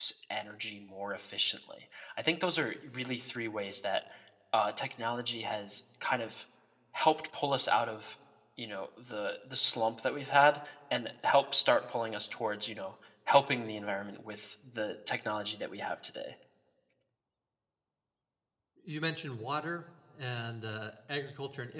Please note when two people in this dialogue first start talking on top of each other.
none

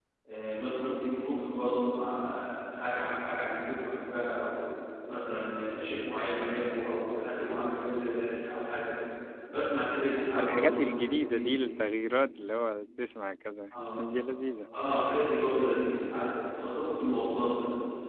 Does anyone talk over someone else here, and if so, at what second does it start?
10.2 s

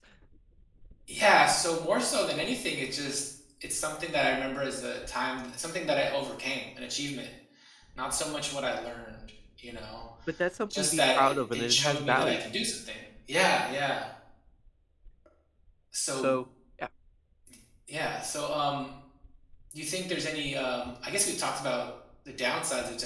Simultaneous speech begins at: 10.8 s

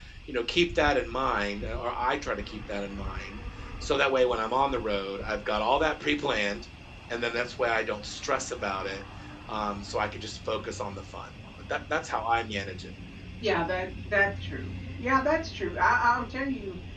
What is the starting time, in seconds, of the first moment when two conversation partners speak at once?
none

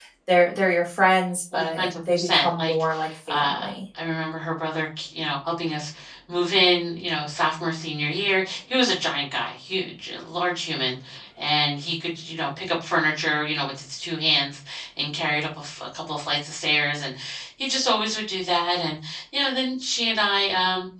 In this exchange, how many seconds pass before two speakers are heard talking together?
1.5 s

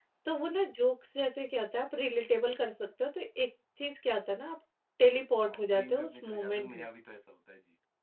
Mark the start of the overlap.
5.4 s

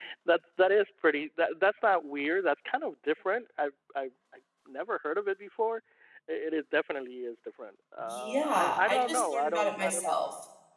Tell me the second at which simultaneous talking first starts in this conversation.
8.1 s

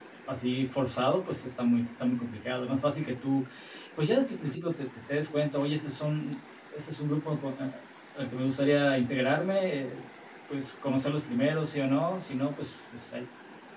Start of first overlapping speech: none

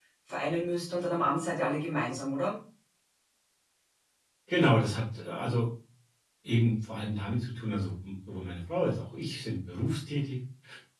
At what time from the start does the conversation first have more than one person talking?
none

